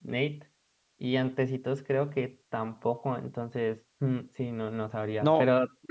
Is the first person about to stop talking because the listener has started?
Yes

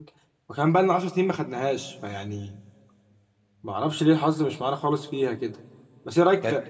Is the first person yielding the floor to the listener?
No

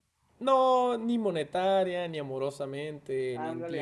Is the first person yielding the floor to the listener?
Yes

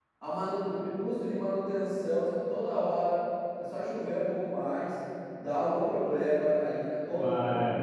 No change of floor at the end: Yes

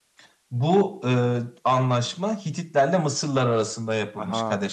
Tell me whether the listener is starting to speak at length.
No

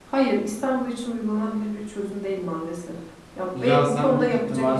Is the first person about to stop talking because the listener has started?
Yes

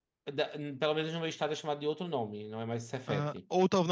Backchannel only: No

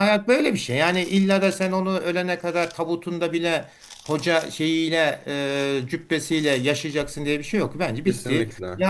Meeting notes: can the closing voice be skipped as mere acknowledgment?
Yes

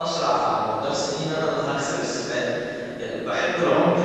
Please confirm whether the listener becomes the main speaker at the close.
No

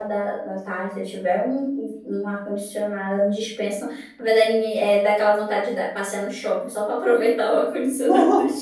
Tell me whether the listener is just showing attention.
No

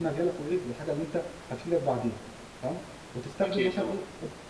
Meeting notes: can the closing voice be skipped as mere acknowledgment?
Yes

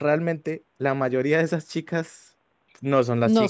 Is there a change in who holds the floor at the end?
No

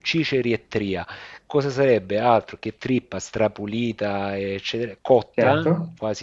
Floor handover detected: No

